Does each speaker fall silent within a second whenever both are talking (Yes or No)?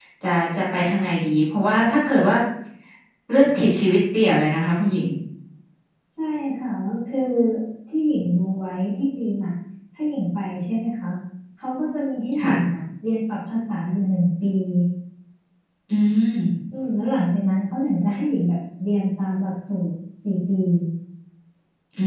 Yes